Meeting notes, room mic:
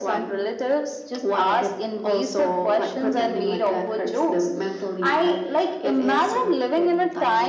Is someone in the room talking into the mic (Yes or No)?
No